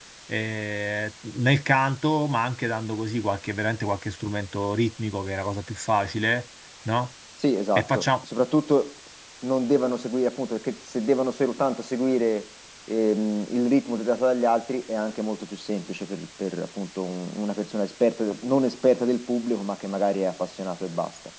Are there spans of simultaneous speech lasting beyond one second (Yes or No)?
No